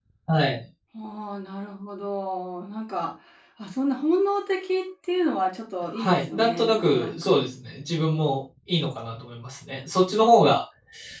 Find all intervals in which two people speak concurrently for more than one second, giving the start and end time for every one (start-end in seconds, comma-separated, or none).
6.0-7.4